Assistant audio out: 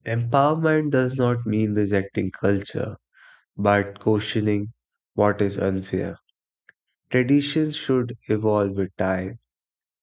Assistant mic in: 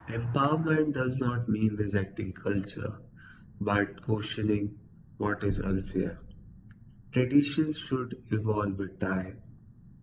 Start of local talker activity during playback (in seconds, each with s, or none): none